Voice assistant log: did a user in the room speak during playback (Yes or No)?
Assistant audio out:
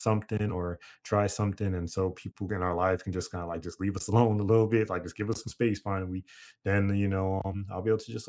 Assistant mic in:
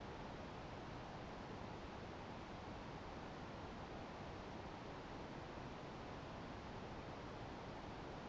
No